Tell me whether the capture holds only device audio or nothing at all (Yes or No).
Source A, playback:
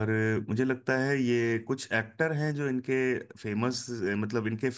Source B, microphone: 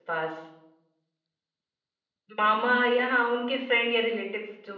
No